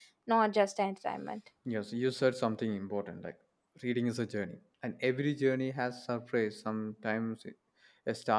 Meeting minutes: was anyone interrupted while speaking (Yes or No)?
No